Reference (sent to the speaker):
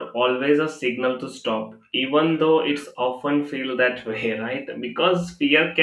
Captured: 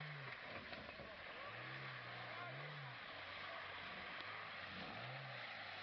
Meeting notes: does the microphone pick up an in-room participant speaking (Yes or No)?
No